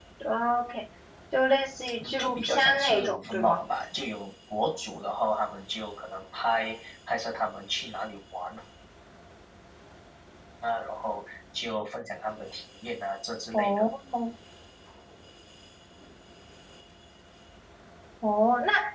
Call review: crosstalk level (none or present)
present